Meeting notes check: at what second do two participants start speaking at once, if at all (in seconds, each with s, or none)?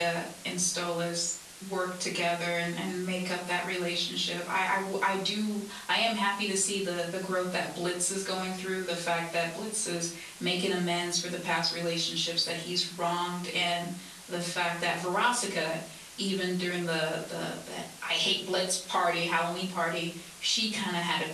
none